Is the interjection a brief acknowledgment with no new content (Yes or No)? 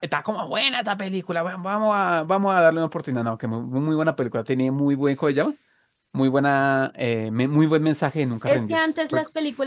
No